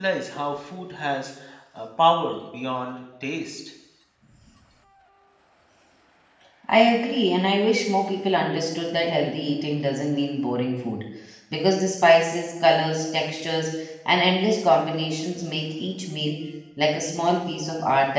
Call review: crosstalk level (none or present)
none